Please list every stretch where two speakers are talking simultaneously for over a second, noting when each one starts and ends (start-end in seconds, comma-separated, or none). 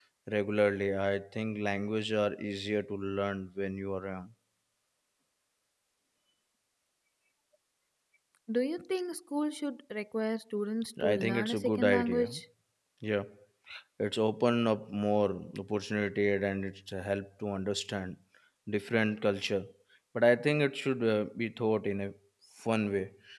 11.0-12.2